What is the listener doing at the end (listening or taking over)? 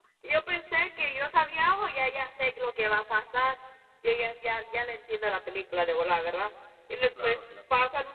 listening